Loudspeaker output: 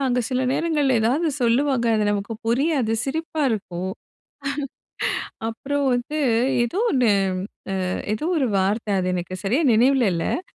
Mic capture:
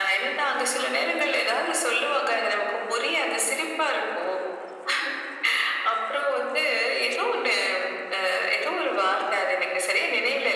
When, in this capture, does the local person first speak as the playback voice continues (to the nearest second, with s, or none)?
none